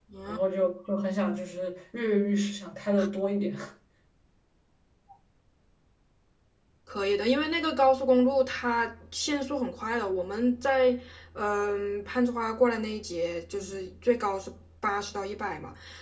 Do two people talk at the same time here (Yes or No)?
No